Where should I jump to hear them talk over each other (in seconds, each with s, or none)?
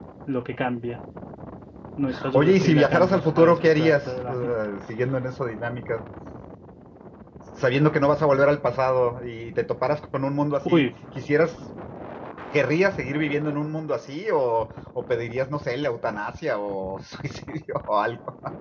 2.3 s